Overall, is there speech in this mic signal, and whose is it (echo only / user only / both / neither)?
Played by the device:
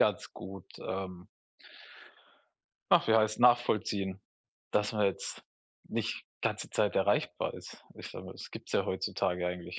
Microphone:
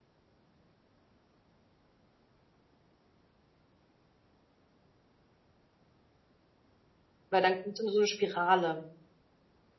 user only